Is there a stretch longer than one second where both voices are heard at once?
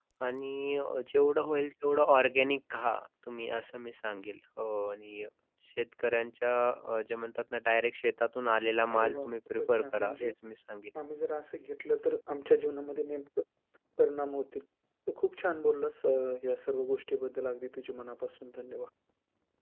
Yes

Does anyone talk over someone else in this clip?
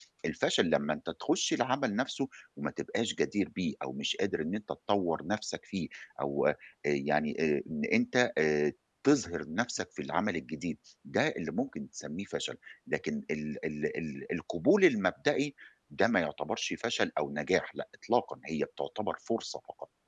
No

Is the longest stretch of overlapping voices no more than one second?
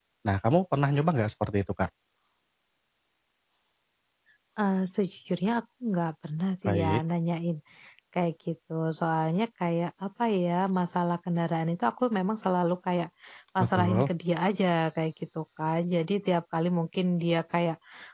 Yes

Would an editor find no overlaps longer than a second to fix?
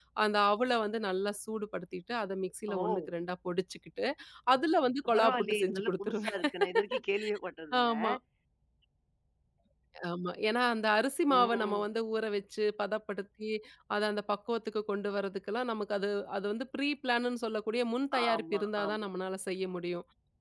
No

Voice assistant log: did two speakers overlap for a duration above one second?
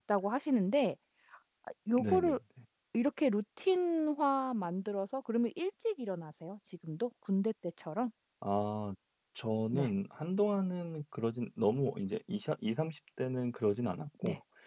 No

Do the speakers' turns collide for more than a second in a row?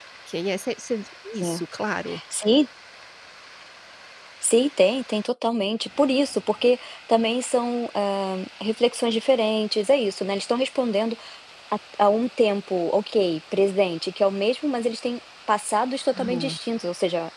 No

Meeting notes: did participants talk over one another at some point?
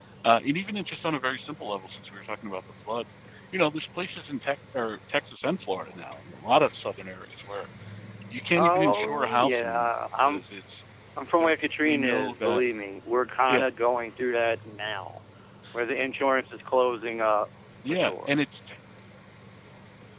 Yes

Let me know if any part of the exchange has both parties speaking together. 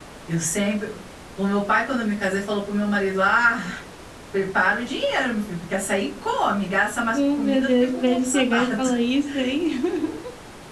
Yes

